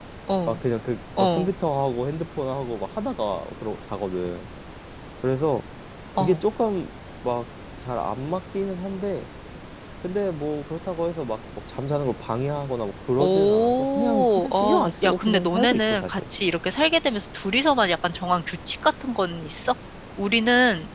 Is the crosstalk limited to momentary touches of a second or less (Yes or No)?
No